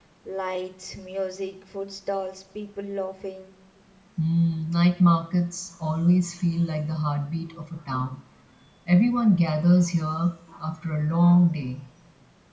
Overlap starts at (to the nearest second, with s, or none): none